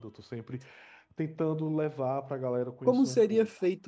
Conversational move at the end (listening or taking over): taking over